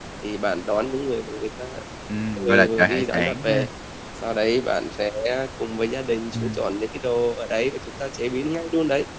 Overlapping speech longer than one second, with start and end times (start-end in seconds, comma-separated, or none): 2.4-3.7